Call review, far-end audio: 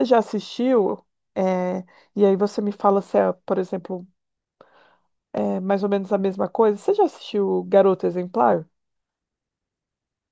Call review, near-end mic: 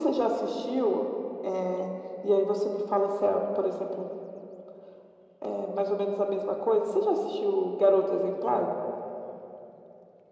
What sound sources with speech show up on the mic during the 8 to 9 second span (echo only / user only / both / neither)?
echo only